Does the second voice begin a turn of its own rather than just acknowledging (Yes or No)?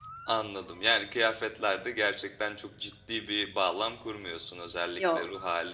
No